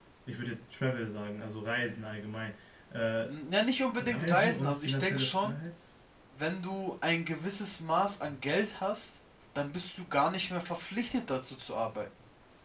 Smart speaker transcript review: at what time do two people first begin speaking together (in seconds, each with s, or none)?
4.0 s